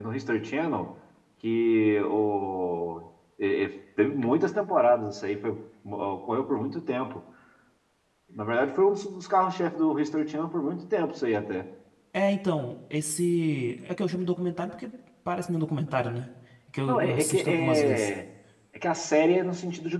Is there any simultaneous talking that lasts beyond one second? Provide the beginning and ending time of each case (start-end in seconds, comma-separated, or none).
16.9-18.1